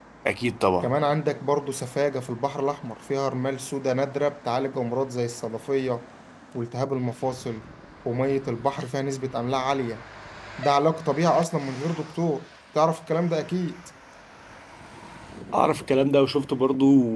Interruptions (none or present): none